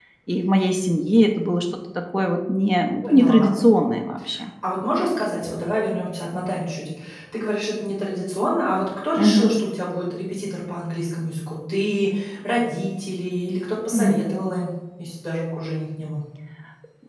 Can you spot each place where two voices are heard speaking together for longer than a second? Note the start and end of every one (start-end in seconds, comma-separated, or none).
none